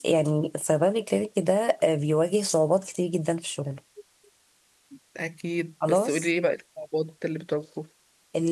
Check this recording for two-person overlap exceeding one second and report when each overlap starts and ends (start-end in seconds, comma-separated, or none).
none